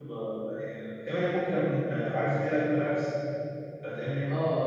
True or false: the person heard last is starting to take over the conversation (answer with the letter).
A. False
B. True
B